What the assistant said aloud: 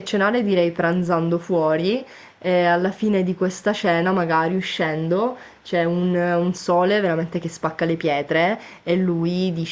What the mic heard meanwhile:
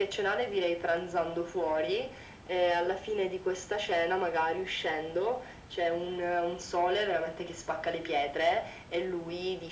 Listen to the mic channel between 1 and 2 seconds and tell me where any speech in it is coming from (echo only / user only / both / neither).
echo only